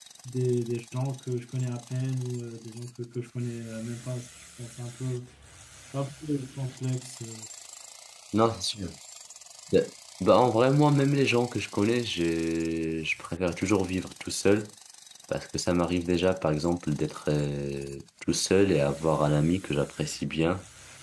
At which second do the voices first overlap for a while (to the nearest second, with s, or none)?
none